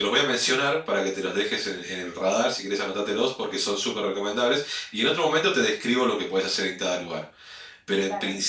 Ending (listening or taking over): listening